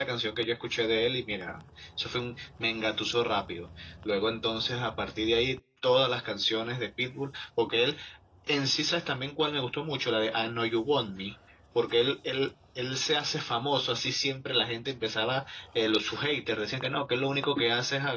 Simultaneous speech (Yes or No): No